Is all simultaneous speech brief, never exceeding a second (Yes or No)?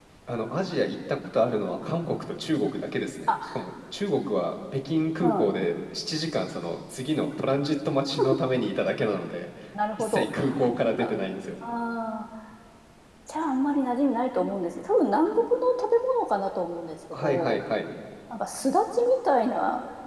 Yes